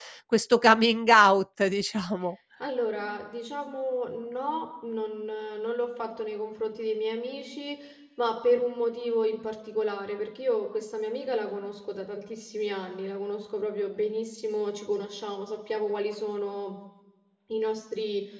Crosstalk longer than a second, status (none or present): none